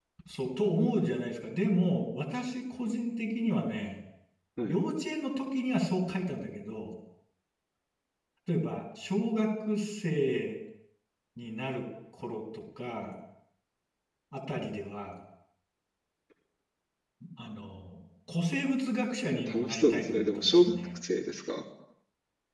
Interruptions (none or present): present